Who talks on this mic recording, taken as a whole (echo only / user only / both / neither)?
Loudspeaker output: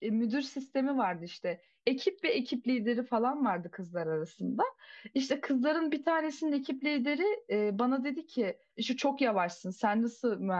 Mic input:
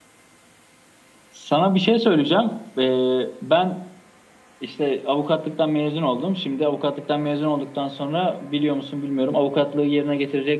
user only